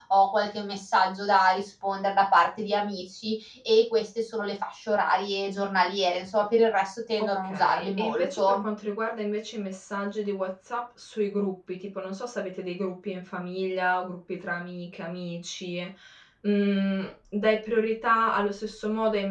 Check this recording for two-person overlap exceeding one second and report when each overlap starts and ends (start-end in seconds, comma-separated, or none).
7.2-8.6